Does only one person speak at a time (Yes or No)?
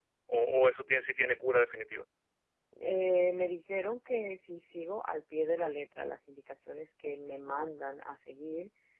Yes